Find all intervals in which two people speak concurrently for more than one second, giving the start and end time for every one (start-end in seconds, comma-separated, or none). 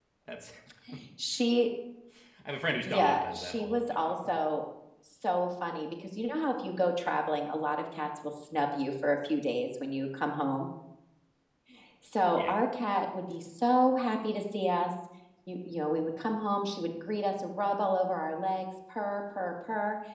2.8-4.2